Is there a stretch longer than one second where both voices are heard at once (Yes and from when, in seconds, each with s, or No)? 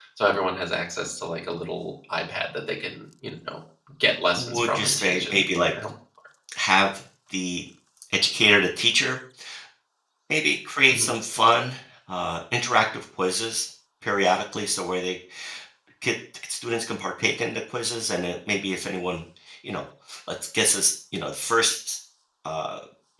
Yes, from 4.4 s